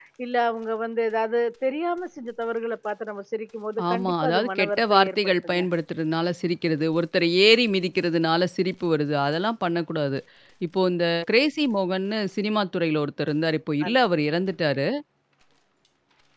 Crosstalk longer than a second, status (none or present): present